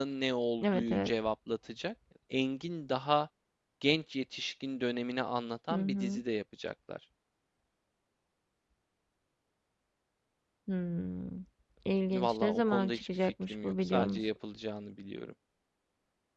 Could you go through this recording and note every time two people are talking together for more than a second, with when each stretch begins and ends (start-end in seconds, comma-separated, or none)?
12.1-14.2